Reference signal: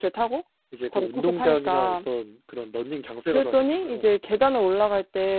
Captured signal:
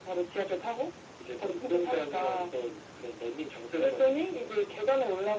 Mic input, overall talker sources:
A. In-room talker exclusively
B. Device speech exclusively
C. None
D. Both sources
B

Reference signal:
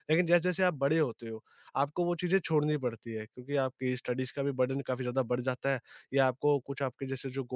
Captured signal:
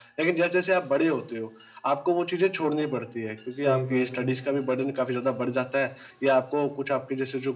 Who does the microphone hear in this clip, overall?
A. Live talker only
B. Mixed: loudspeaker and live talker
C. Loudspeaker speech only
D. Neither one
B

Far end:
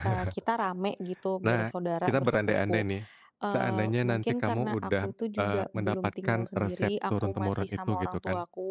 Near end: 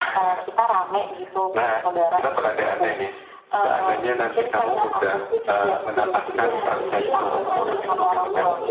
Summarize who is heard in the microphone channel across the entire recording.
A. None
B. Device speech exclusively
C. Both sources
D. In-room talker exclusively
C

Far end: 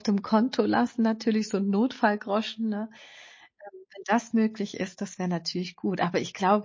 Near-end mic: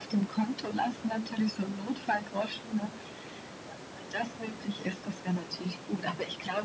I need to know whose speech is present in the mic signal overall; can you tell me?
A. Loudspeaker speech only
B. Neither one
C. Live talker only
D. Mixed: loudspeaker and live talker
A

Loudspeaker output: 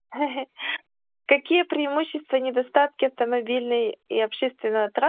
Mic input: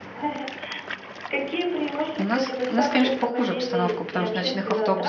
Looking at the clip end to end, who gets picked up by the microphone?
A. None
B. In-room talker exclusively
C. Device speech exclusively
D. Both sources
D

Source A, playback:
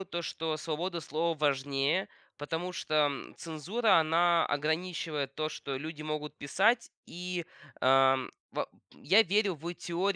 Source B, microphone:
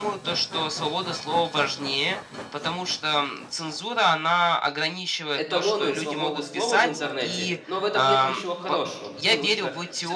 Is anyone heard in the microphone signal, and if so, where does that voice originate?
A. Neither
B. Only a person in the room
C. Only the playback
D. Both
D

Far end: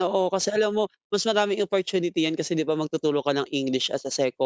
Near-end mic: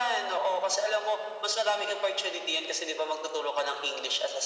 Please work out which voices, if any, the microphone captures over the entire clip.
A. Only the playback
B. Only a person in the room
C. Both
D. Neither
A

